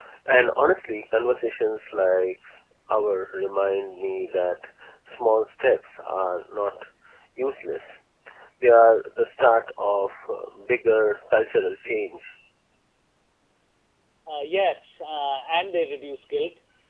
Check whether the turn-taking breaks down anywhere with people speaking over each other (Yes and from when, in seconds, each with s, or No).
No